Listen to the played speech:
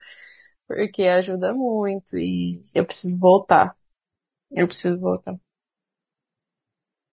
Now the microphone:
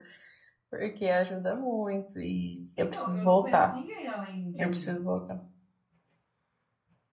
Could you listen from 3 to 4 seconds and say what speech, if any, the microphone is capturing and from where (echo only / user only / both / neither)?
both